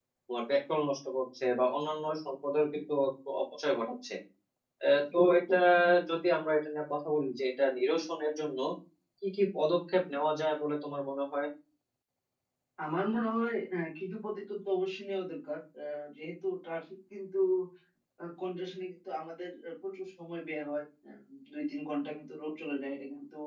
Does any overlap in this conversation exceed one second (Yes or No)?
No